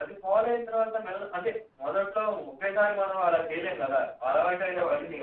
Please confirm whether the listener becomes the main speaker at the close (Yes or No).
No